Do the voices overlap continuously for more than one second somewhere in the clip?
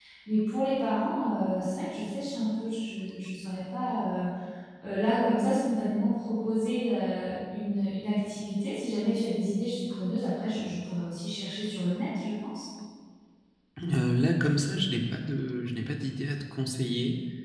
No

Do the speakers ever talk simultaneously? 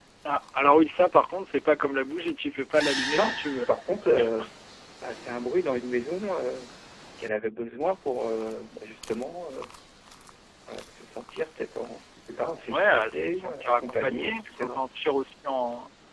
Yes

